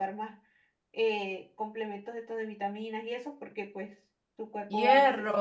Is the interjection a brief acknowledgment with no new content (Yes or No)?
No